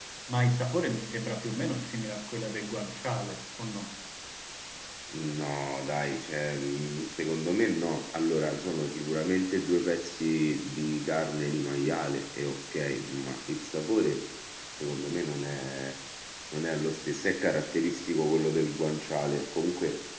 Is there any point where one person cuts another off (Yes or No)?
No